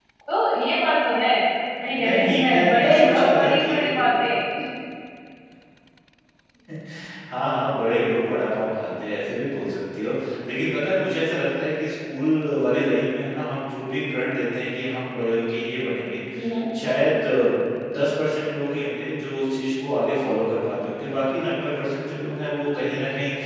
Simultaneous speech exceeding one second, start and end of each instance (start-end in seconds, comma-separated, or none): 2.0-4.0